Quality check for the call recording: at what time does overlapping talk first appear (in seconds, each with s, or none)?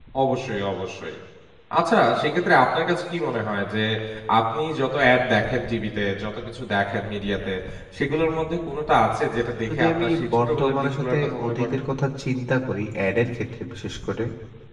9.7 s